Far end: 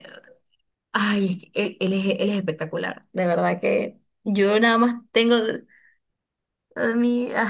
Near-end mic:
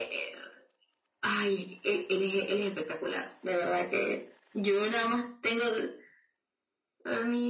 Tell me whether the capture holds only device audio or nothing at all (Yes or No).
Yes